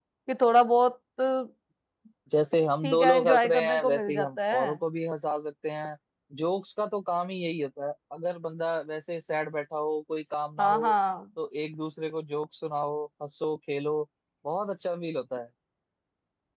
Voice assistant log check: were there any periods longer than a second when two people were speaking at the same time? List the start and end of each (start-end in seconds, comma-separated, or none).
2.8-4.6